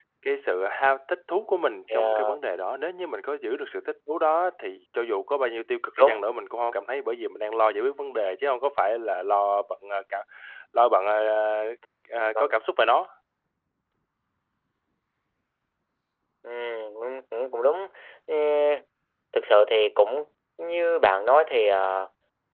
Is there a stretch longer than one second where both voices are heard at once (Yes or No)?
No